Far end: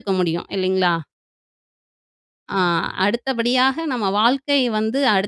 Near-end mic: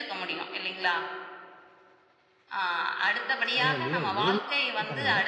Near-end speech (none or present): present